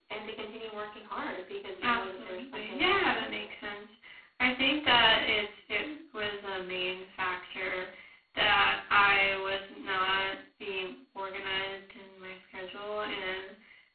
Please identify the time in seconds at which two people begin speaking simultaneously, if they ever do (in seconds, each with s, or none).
1.8 s